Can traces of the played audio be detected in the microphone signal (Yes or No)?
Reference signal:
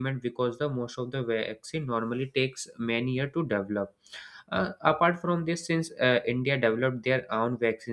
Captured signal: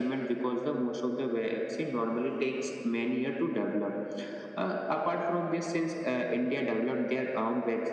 Yes